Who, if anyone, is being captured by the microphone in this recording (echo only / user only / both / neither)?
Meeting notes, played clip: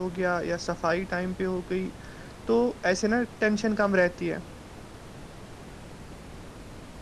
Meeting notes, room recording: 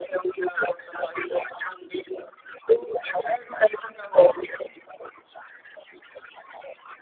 echo only